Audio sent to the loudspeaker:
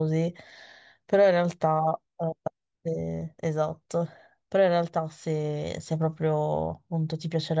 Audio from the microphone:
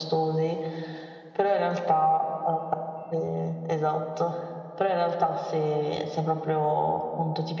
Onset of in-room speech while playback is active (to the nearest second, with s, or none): none